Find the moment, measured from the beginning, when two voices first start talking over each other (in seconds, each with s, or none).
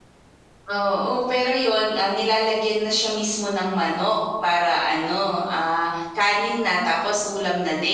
none